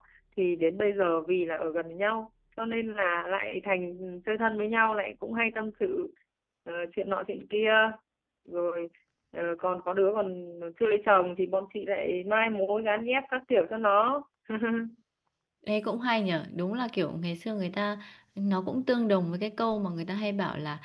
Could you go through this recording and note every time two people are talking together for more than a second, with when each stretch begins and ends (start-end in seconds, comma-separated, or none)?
none